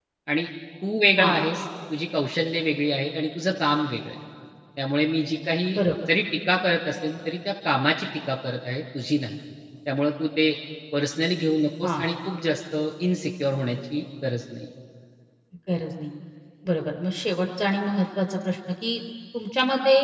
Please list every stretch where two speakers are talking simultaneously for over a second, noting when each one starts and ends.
none

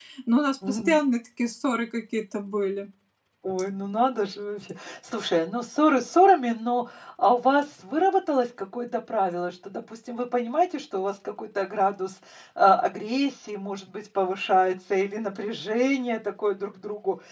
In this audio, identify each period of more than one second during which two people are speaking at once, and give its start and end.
none

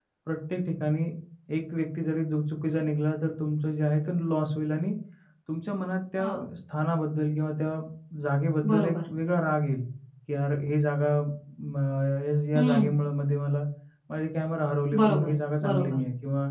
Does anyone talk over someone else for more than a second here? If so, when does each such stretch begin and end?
none

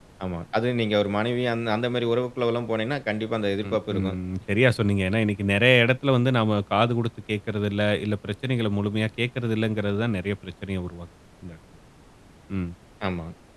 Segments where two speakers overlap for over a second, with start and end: none

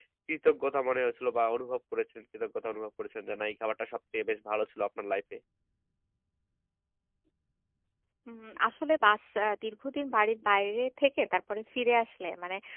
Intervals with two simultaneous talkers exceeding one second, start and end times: none

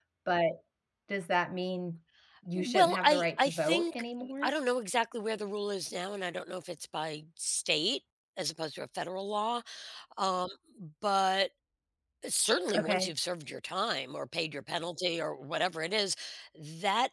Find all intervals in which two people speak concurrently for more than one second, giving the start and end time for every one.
2.6-4.0

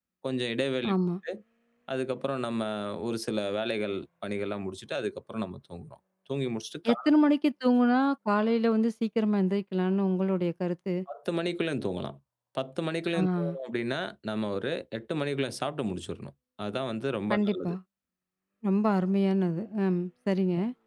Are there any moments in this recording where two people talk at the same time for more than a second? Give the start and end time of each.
none

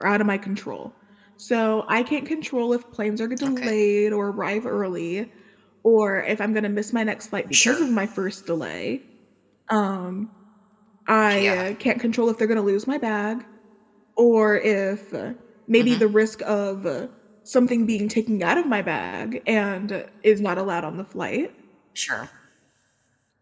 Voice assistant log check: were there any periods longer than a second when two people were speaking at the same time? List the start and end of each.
none

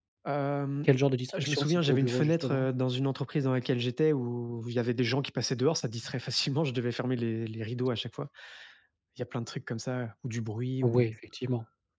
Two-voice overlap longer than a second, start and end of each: 1.4-2.7

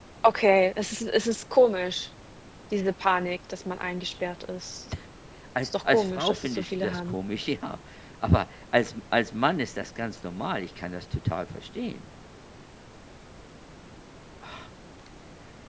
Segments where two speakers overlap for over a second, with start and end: 5.6-7.2

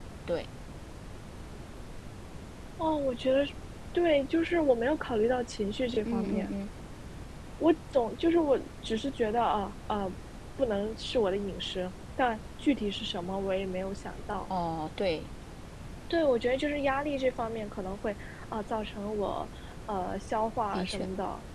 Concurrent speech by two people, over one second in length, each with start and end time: none

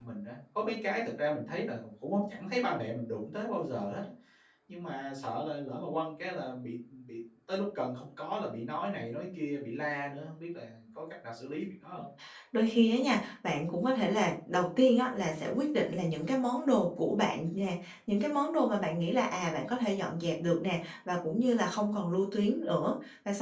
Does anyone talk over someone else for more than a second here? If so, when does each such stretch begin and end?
none

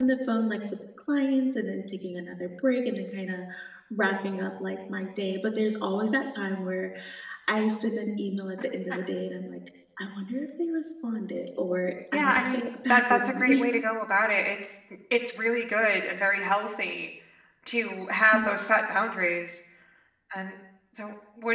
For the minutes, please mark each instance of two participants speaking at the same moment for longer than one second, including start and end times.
12.1-13.6

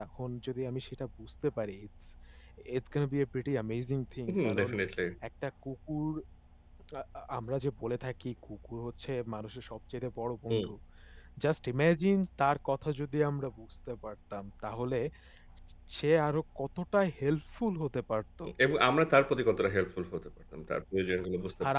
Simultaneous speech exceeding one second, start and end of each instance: none

